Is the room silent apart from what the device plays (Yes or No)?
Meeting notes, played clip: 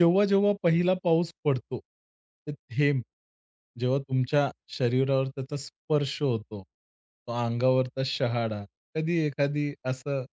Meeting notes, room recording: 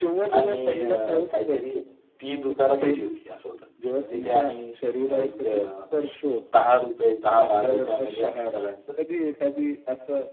No